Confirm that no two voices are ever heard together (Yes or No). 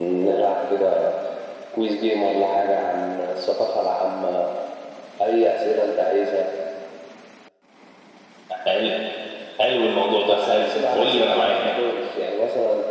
No